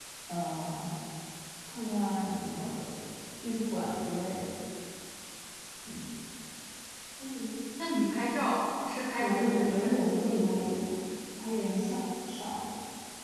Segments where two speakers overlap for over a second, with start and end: 9.2-10.5

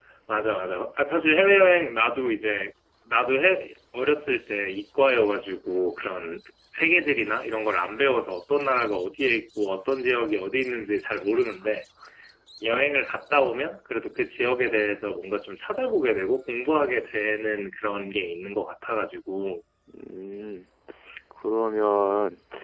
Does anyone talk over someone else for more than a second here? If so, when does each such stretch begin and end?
none

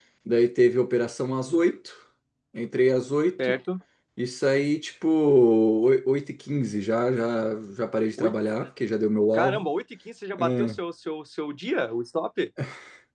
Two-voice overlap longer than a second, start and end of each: none

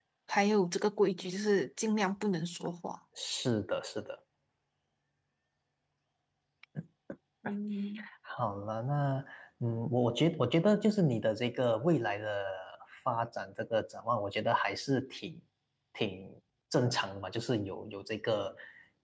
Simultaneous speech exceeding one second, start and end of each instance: none

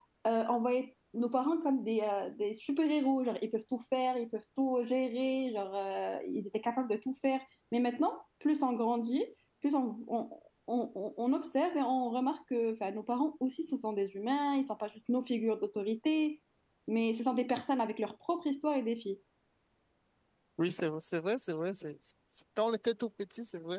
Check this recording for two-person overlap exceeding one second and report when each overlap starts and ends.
none

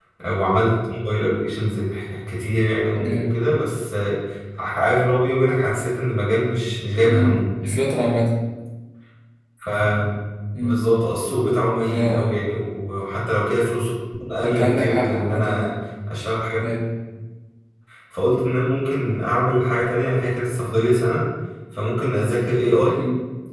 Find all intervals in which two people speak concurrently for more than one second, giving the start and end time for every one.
14.4-15.7

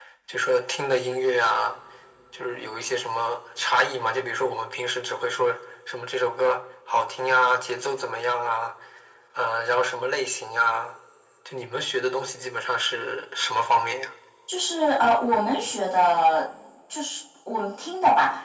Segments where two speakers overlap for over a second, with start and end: none

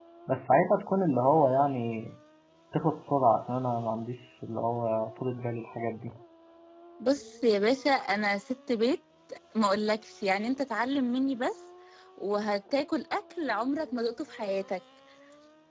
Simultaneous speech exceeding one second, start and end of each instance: none

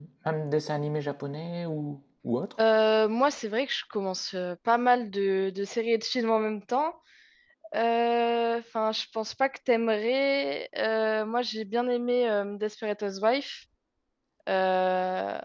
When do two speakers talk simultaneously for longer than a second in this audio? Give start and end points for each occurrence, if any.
none

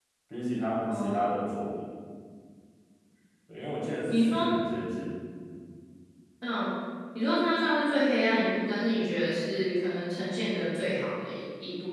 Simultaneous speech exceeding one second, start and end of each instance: none

